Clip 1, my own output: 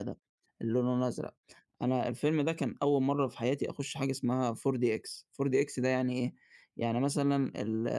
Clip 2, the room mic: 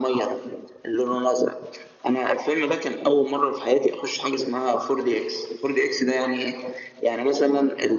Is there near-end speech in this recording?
No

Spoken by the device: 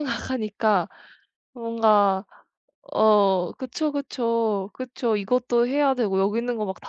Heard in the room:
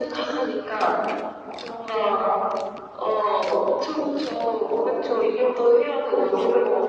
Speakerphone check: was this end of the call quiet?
Yes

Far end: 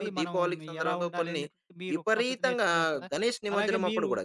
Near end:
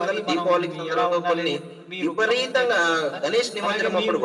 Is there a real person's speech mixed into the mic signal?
No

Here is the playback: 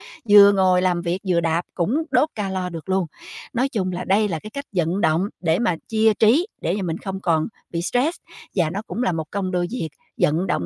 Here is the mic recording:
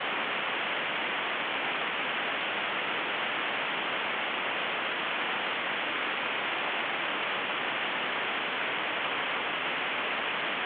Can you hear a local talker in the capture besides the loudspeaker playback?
No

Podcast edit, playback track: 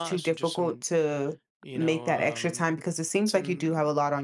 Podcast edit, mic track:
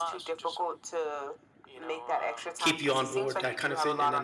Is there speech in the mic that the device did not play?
Yes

